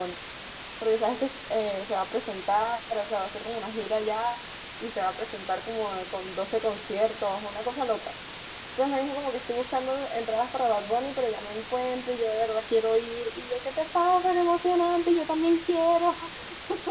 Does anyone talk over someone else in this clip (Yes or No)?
No